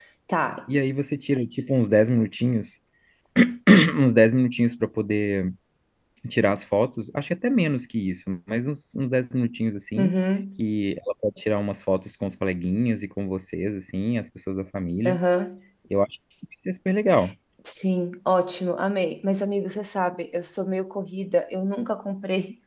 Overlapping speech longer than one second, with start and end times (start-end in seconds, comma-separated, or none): none